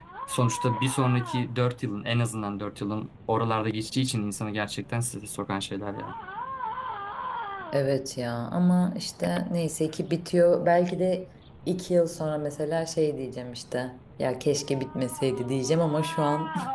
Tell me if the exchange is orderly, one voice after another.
Yes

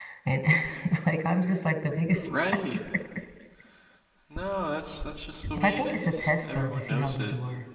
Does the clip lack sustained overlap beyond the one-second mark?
No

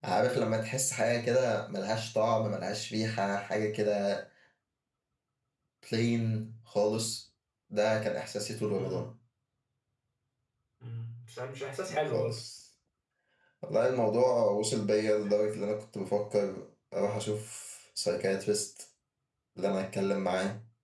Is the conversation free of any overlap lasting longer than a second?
Yes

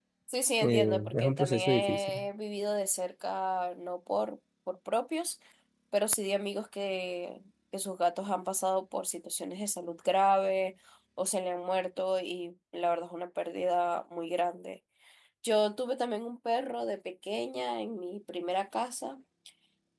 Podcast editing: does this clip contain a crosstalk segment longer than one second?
Yes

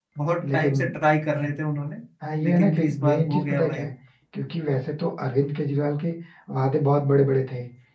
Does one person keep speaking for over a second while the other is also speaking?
Yes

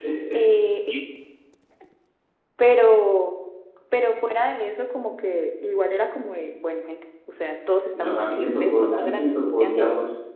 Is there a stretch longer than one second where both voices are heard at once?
Yes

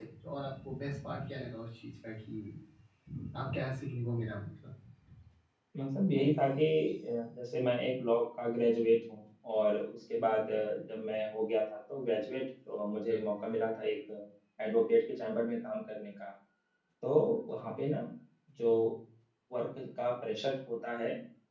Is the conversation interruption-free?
Yes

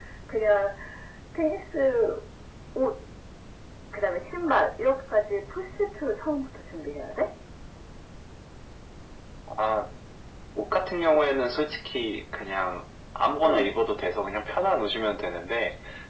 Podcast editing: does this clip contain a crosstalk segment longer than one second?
No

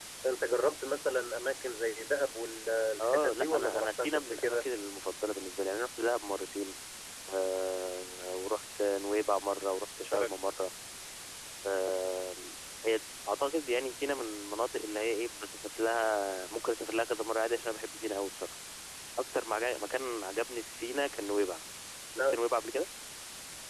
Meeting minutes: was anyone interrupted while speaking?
Yes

